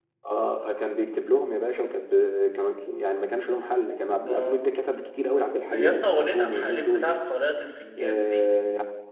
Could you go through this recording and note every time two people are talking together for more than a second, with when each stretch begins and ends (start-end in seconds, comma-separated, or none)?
5.7-7.1